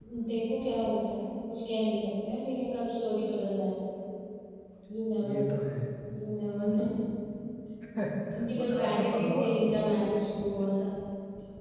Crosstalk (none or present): present